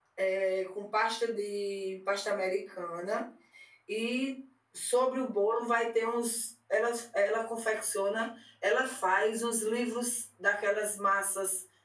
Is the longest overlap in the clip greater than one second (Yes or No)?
No